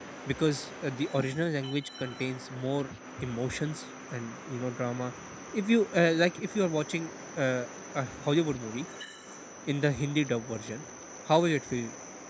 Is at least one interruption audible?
No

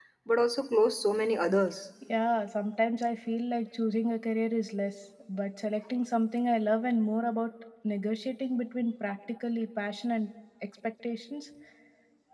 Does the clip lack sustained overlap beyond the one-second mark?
Yes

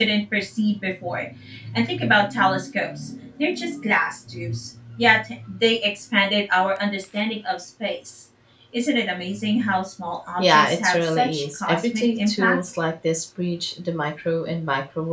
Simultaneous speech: Yes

